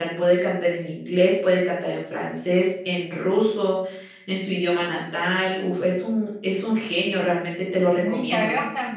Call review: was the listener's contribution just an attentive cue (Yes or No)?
No